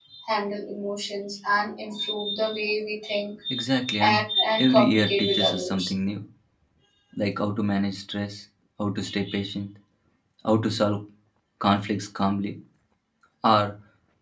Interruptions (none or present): present